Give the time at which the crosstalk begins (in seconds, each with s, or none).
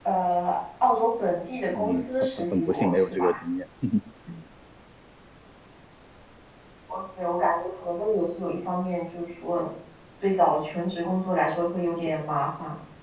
1.8 s